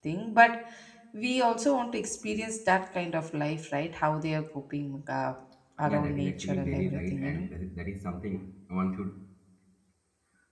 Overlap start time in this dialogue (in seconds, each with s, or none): 5.8 s